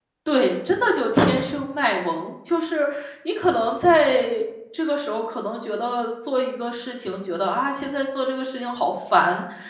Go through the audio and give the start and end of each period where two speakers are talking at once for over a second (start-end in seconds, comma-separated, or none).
none